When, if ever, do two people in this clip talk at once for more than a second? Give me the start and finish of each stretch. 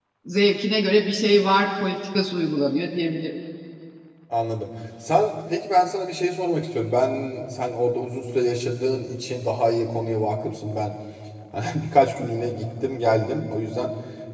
none

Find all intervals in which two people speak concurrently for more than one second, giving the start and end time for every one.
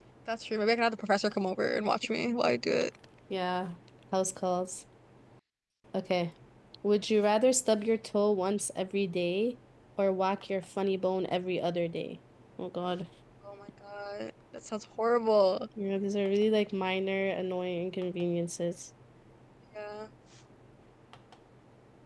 none

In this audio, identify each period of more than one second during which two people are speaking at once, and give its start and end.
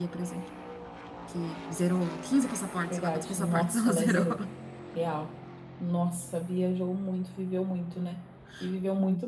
2.9-4.2

